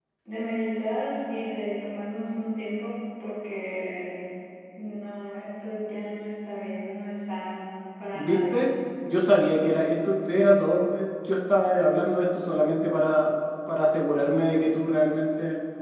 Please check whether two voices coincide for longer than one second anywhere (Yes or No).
No